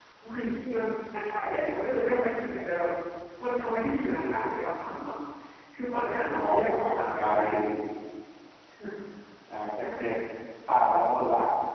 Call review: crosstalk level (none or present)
present